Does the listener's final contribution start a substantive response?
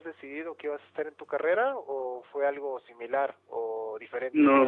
Yes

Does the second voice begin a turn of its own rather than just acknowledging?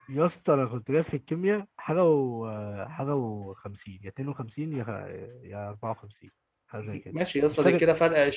Yes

